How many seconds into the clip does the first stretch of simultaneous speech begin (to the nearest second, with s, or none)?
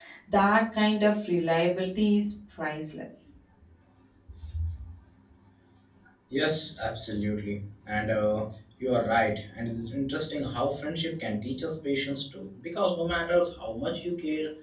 none